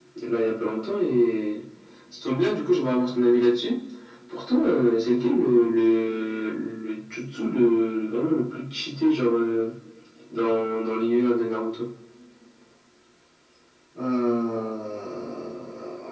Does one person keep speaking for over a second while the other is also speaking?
No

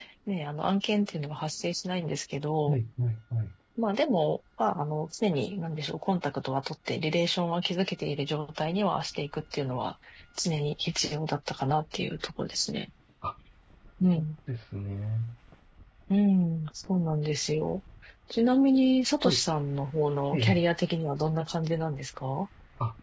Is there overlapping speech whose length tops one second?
No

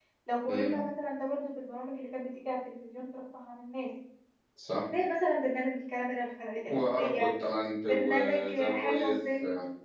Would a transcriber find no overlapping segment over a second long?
No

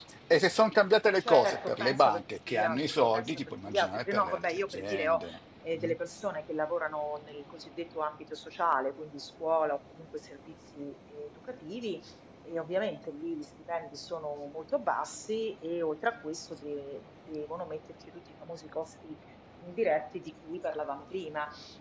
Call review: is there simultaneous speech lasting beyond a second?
Yes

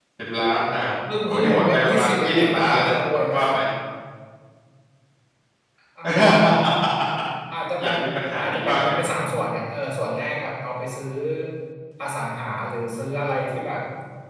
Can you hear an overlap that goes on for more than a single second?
Yes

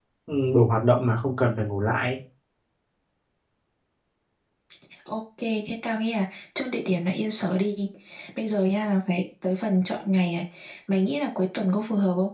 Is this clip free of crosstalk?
Yes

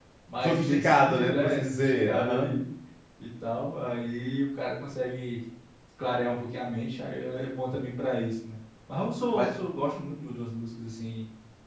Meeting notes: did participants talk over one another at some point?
Yes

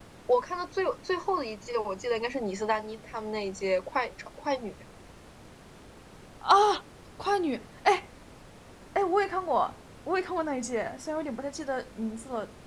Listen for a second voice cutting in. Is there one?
No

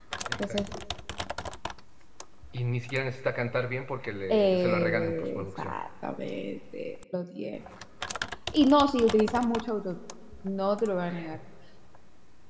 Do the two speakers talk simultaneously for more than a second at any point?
Yes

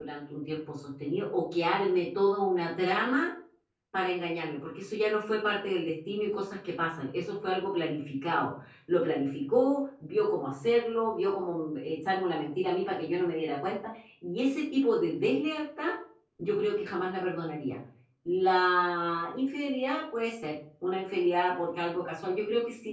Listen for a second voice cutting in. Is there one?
No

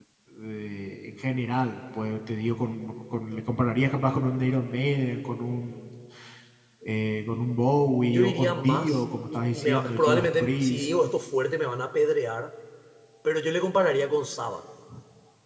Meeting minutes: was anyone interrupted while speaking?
Yes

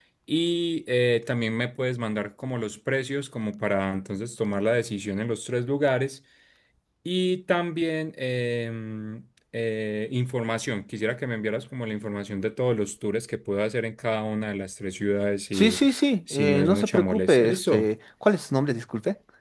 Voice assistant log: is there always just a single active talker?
No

